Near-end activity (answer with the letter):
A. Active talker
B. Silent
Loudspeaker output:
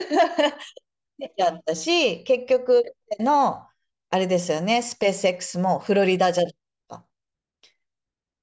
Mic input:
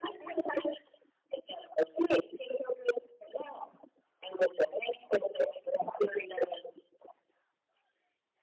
B